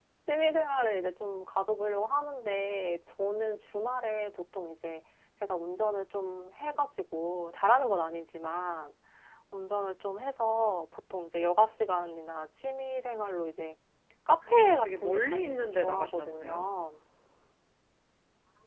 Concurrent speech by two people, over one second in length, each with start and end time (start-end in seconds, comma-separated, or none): 14.6-16.6